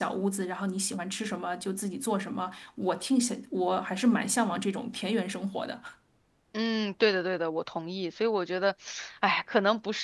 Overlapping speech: No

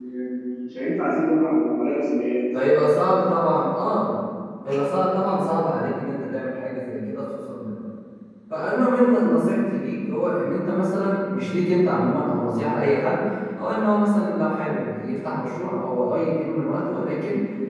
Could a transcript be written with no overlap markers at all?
Yes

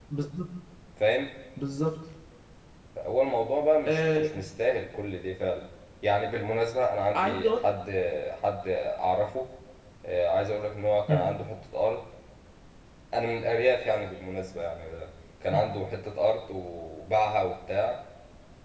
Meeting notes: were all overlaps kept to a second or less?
Yes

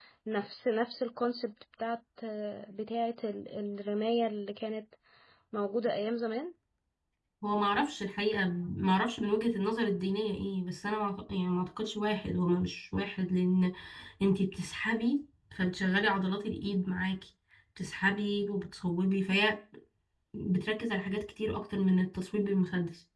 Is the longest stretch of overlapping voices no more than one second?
Yes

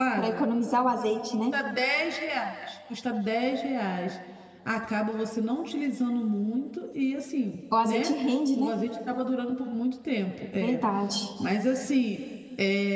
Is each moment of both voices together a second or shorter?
Yes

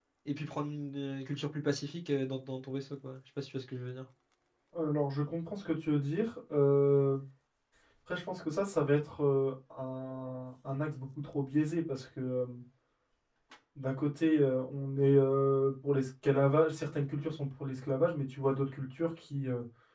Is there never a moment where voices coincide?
Yes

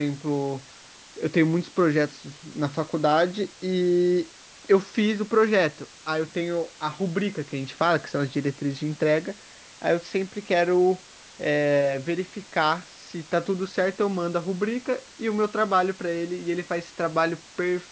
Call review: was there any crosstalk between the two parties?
No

